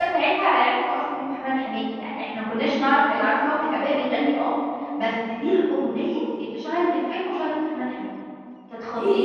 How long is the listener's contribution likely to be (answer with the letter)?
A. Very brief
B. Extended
B